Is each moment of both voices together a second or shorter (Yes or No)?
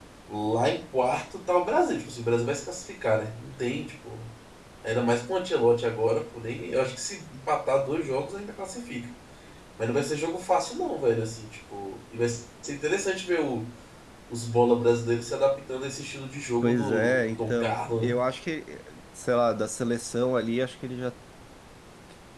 No